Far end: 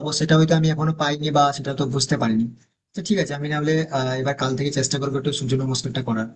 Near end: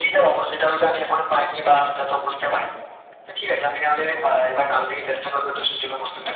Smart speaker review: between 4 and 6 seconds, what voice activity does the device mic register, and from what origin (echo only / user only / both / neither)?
echo only